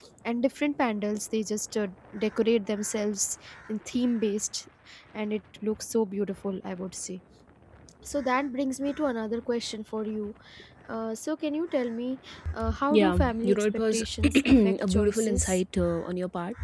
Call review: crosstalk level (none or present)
present